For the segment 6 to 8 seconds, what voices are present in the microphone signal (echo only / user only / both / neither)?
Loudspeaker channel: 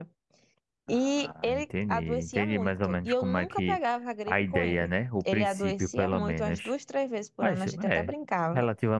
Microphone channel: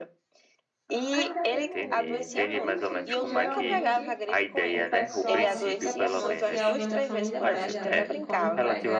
both